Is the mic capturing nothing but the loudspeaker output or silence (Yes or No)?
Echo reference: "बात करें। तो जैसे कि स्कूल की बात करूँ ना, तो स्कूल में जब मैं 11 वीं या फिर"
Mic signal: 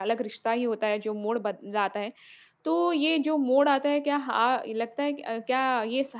No